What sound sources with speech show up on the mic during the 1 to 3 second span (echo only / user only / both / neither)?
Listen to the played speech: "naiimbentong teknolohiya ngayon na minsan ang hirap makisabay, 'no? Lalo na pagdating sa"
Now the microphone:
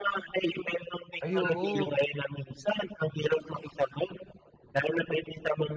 both